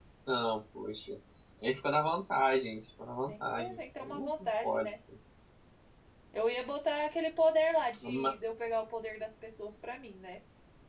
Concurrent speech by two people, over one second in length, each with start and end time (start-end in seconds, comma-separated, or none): 3.3-4.9